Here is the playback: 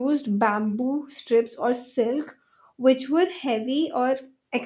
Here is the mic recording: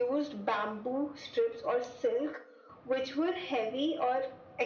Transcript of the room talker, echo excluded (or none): none